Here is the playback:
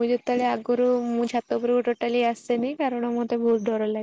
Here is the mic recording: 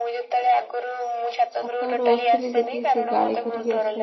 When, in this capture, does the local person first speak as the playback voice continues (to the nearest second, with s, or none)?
2 s